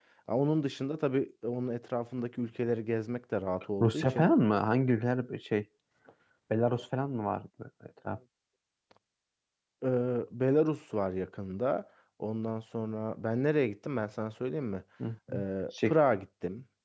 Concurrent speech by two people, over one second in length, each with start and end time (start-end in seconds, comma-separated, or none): none